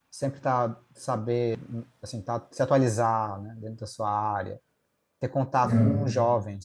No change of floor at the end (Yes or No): Yes